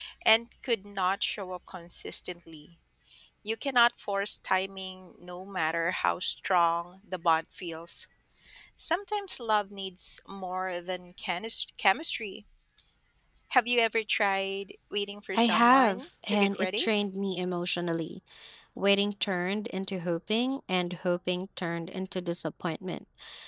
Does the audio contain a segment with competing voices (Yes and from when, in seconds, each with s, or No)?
Yes, from 15.3 s